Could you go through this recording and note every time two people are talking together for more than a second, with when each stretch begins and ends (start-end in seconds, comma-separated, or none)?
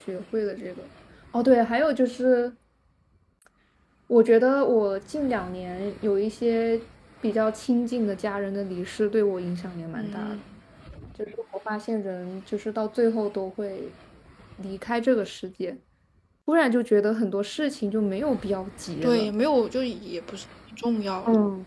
none